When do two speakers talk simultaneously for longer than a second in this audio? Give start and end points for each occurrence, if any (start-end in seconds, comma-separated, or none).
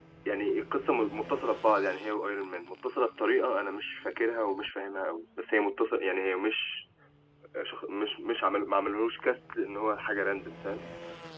none